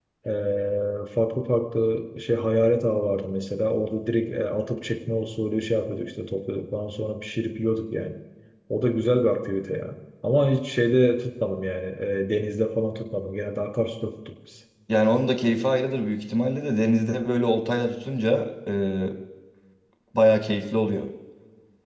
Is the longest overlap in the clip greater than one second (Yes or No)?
No